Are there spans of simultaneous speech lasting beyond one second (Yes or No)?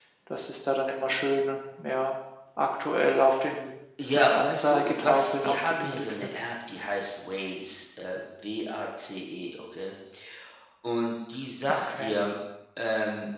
Yes